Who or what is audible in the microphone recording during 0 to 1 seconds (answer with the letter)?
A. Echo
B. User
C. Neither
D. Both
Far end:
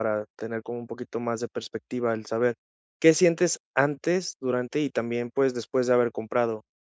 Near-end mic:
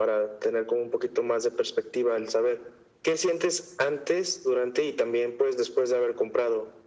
A